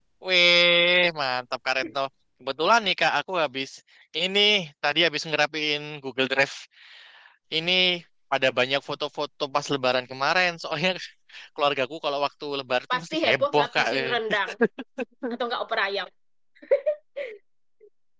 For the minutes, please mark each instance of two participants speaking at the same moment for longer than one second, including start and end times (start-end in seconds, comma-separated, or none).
12.9-14.2